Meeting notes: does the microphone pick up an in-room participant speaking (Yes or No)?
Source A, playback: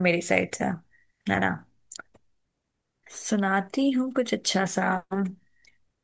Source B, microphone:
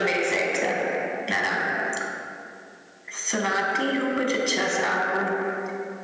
No